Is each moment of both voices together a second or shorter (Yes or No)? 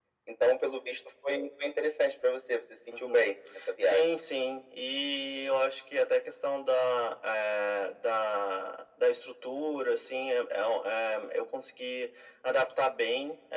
Yes